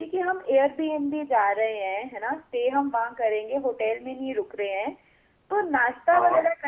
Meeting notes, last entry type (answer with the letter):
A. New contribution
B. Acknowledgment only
B